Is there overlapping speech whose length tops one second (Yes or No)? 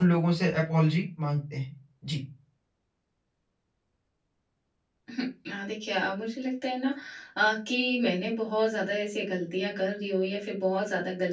No